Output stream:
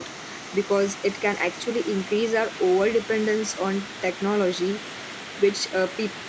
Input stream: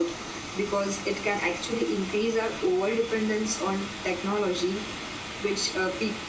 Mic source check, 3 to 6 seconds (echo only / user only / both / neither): echo only